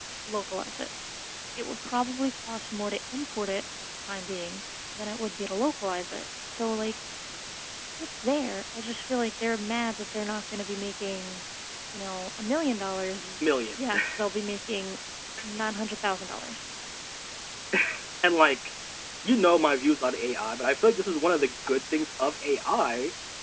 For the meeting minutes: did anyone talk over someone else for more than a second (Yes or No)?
No